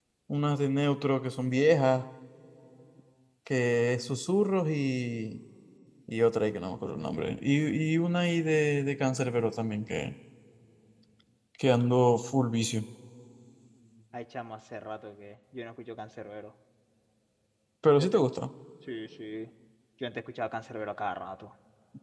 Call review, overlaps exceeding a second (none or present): none